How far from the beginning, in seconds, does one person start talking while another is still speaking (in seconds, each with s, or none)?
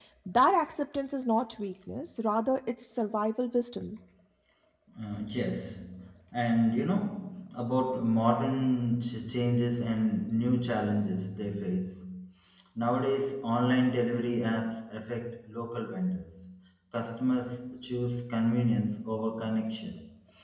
none